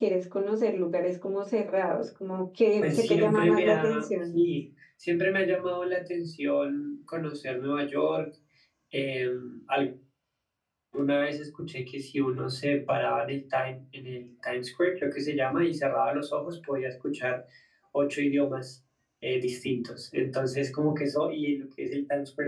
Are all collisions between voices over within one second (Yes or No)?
No